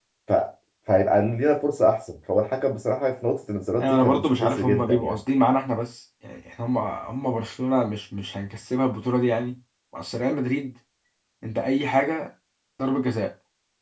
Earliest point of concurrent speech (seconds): 4 s

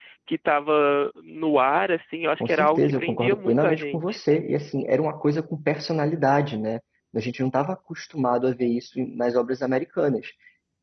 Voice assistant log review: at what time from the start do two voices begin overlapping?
2 s

